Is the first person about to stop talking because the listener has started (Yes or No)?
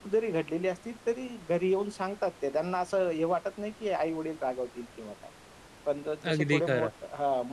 No